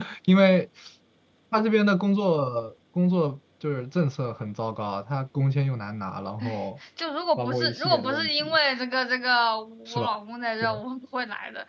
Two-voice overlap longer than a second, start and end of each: 7.4-8.6

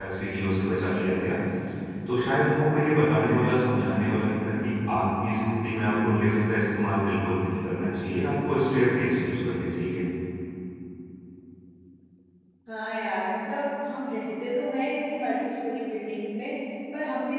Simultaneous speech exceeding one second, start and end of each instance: none

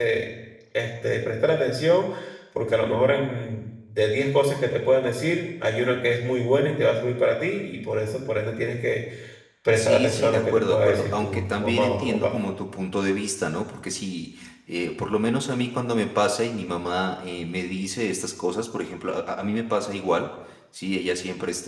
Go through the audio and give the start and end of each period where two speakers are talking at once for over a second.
9.8-12.4

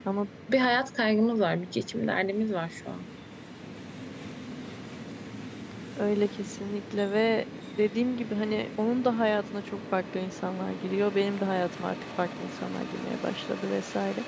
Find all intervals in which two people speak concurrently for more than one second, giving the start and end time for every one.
none

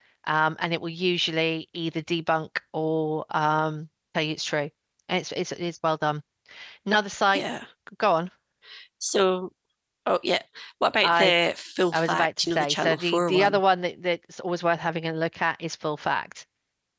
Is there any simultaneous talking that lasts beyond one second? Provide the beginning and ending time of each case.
11.9-13.6

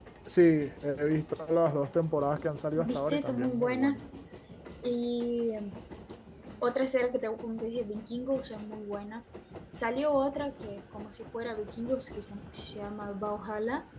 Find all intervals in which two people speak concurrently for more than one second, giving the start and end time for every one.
2.8-4.0

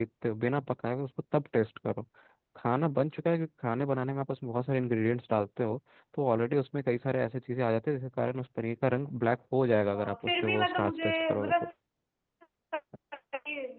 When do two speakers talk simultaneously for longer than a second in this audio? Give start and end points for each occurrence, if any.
9.9-11.5

